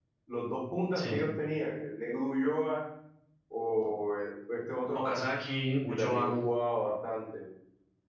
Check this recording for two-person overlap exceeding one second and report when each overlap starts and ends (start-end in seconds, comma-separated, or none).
none